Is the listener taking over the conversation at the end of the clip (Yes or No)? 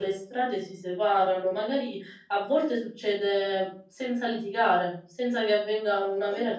No